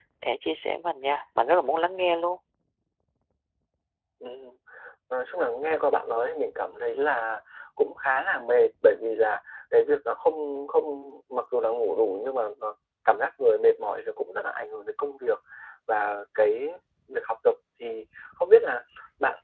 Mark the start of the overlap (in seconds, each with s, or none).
none